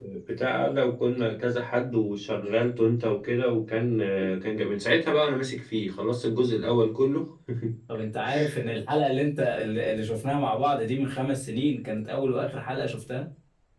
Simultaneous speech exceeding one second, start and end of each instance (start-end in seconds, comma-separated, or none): none